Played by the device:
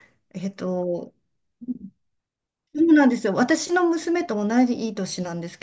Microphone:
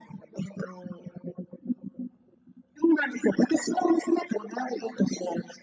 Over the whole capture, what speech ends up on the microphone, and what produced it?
echo only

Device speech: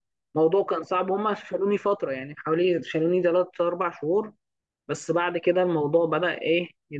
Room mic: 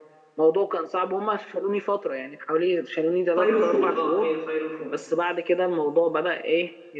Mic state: both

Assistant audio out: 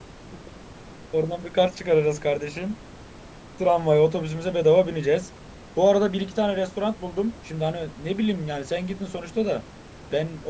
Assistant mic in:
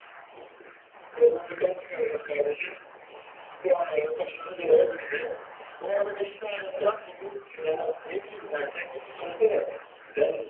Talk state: echo only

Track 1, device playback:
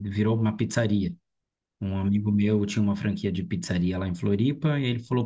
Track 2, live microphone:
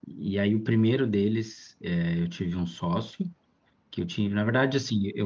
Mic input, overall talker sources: user only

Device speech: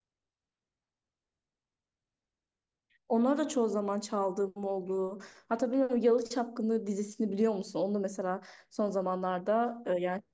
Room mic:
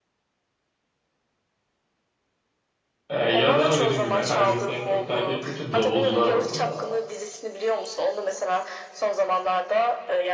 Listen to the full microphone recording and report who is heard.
both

